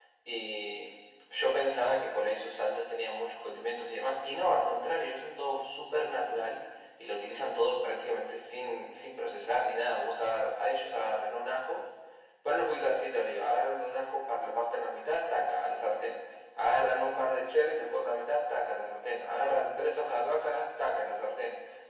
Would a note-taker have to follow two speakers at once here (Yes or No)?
No